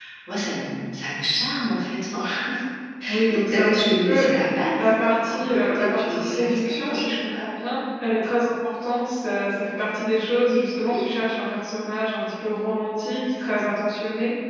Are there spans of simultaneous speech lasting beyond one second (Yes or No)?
Yes